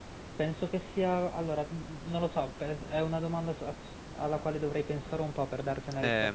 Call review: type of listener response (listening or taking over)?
listening